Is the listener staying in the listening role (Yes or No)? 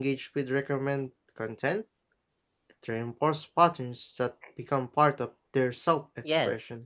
No